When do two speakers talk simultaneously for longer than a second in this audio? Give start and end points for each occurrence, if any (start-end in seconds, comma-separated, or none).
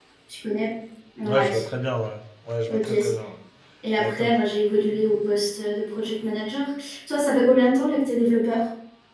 none